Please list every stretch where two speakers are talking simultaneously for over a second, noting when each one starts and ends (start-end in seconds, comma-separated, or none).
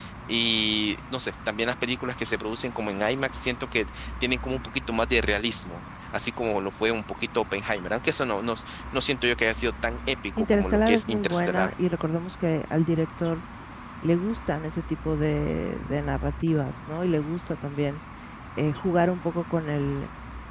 10.4-11.7